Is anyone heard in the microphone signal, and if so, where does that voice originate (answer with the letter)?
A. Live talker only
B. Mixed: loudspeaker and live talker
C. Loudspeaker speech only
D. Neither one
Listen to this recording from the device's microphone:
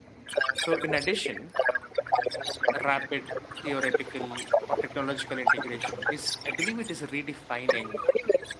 B